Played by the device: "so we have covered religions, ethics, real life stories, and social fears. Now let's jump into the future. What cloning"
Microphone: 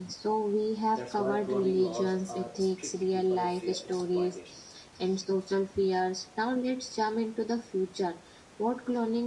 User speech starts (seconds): 1 s

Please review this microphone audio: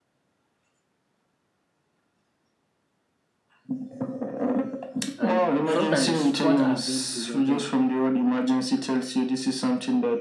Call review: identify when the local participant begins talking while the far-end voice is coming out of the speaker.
5 s

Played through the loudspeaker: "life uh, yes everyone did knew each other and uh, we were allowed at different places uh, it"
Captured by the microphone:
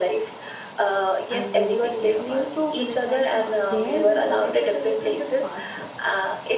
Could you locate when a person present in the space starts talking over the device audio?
1 s

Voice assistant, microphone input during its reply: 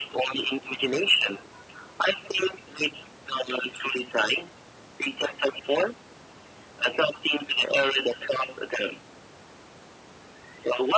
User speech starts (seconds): none

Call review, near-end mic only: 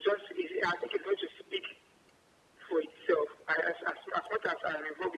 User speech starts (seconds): none

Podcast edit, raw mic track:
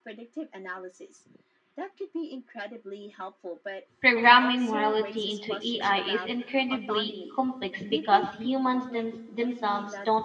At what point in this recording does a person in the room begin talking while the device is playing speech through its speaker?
4 s

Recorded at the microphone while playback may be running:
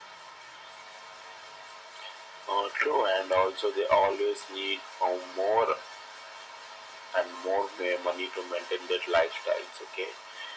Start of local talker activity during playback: none

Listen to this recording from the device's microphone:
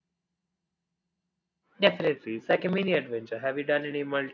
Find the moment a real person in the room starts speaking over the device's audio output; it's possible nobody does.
2 s

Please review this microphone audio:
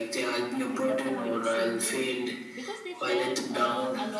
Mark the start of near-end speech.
1 s

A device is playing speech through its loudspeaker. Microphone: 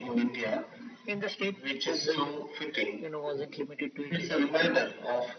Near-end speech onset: none

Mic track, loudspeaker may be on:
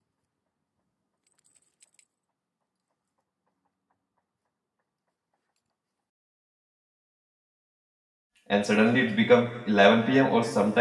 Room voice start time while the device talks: 8 s

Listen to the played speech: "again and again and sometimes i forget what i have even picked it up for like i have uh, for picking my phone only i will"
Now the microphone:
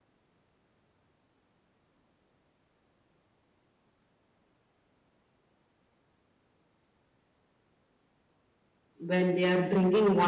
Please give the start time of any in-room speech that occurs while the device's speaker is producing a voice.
9 s

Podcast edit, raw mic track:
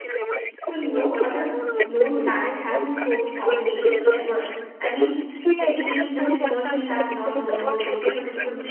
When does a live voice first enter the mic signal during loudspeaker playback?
1 s

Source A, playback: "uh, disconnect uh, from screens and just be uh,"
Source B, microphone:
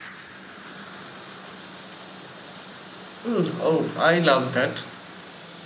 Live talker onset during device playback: 3 s

